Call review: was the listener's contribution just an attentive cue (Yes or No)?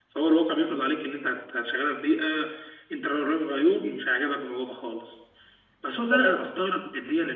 Yes